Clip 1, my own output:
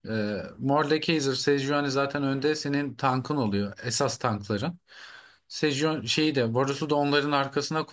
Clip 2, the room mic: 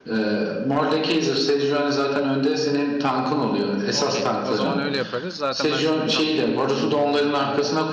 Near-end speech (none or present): present